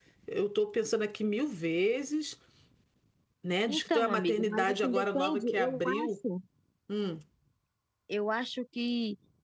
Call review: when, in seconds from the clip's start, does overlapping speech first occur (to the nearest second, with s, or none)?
4 s